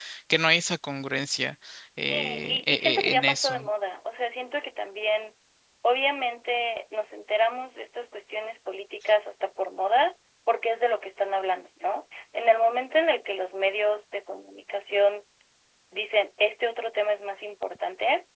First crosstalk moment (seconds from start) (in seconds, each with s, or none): 2.1 s